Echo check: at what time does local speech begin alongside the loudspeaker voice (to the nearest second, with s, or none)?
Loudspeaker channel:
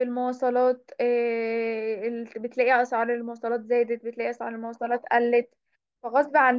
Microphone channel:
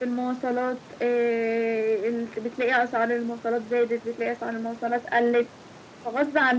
none